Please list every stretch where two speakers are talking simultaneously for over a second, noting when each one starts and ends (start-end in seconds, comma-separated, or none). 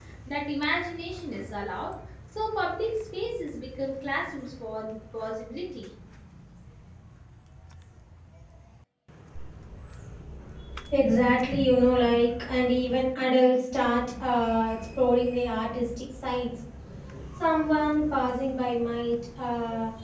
none